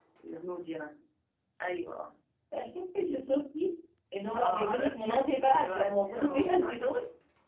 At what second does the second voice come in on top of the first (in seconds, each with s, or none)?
4.3 s